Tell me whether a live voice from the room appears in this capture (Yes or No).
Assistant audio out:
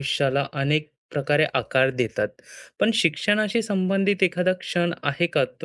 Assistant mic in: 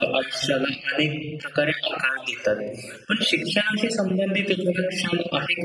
No